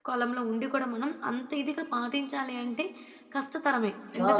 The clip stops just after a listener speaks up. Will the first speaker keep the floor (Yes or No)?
Yes